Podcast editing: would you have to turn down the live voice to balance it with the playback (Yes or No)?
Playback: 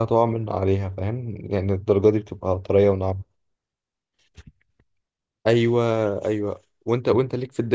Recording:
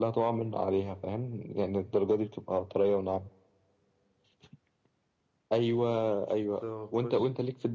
No